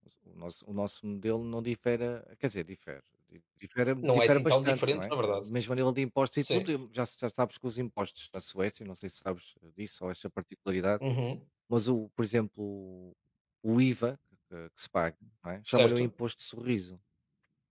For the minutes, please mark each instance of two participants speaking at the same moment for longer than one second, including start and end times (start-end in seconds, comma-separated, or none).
4.0-5.5